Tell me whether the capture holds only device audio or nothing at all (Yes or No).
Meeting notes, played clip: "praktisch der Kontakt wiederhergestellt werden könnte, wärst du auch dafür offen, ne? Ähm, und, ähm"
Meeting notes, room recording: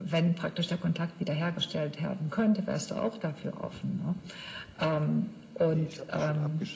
No